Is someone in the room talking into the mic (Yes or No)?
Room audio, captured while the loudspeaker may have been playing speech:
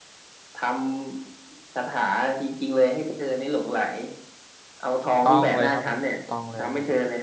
Yes